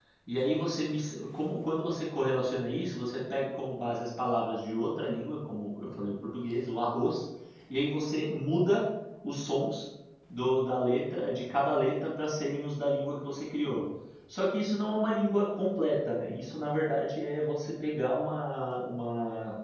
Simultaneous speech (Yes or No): No